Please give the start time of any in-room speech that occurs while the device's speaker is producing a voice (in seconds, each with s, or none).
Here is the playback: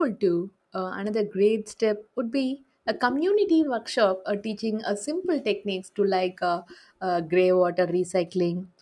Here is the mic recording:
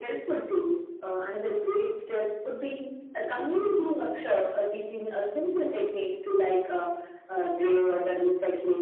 none